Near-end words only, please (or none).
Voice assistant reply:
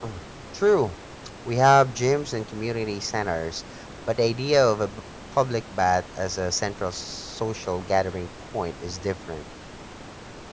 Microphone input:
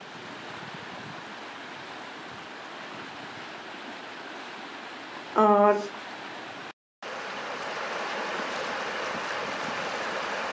uh,